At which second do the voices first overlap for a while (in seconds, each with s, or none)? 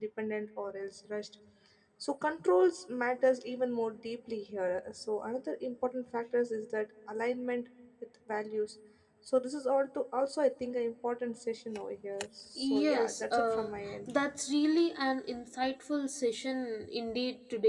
12.6 s